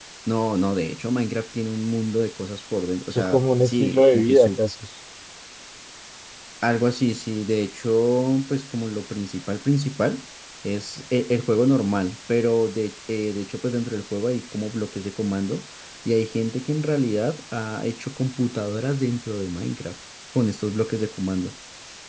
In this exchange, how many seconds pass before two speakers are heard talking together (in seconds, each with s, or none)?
3.1 s